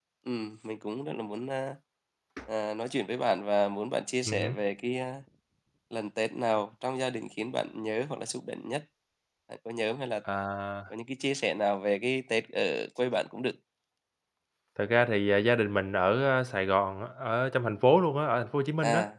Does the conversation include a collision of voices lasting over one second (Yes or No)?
No